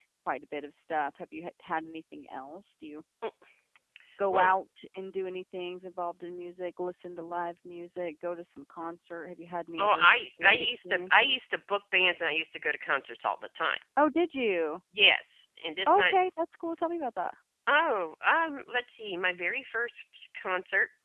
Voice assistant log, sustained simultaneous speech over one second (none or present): present